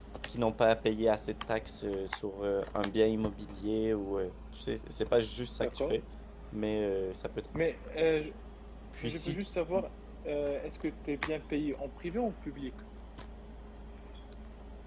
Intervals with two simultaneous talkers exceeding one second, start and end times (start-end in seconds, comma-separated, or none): none